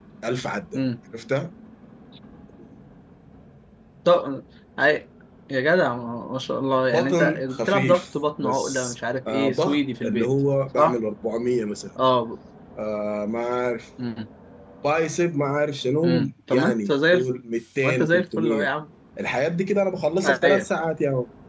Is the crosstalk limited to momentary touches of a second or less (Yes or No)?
No